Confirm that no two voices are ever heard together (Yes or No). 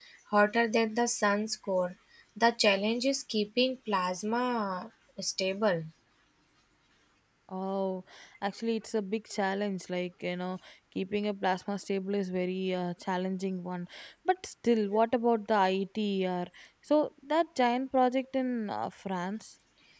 Yes